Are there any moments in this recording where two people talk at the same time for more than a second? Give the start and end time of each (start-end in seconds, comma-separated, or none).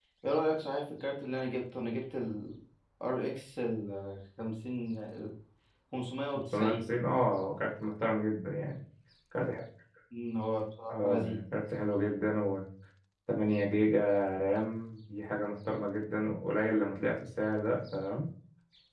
none